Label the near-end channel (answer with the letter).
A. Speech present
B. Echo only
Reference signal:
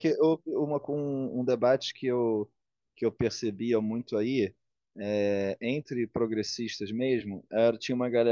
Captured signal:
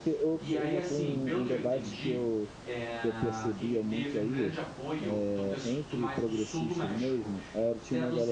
A